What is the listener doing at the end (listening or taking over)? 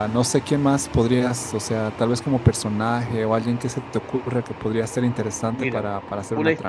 taking over